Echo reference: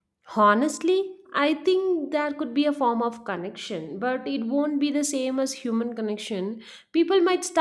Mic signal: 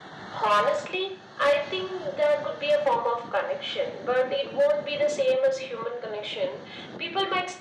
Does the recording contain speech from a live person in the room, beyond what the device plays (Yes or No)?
No